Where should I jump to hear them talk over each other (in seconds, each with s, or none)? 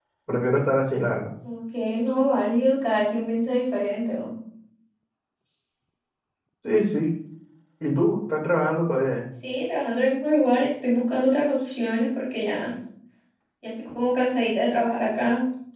none